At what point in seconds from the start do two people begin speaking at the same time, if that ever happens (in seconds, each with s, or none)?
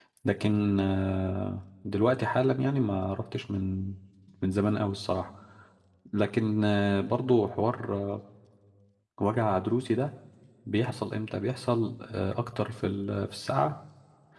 none